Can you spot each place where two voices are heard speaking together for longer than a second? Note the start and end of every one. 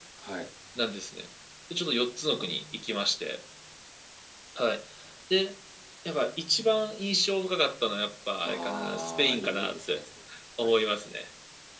8.4-10.0

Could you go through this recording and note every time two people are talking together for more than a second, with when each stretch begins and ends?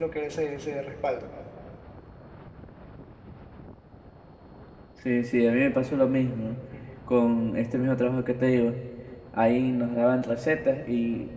none

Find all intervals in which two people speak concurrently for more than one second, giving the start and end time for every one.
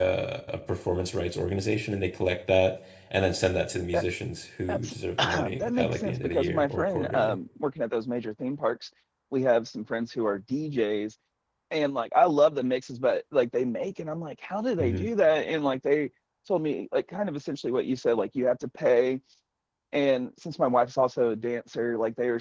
4.7-7.4

